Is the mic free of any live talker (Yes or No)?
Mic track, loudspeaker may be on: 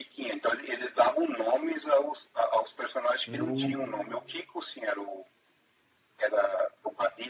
No